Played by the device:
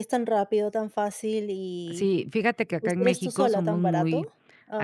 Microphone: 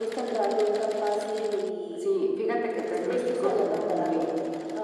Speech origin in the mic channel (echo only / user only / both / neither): echo only